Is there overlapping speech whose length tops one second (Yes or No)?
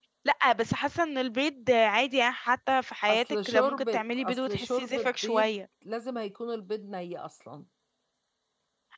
Yes